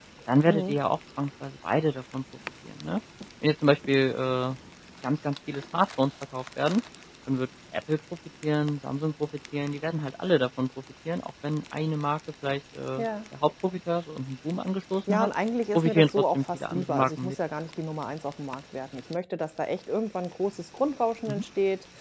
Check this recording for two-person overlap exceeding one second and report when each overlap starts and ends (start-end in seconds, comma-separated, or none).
15.7-17.4